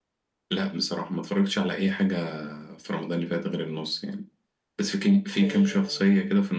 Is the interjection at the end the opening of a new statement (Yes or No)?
No